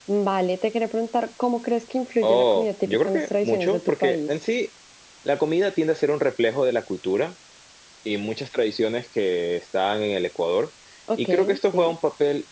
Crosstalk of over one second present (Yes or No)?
Yes